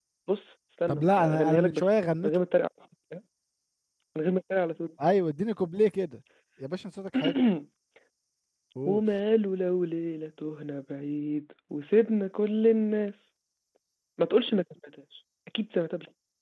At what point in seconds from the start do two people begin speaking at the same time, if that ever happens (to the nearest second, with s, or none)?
1 s